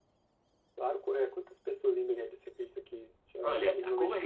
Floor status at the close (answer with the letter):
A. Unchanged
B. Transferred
B